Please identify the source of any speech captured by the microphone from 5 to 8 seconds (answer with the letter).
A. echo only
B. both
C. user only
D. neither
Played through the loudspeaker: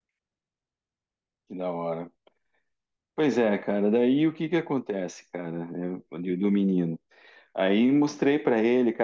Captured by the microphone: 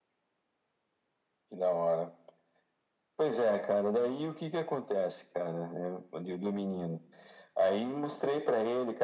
A